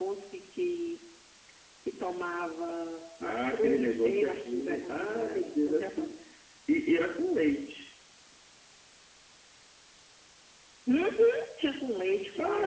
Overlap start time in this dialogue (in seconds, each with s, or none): 3.2 s